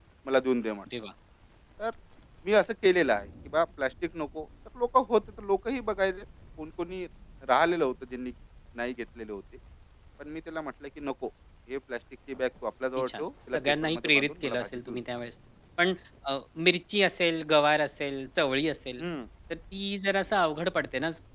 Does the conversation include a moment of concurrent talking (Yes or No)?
Yes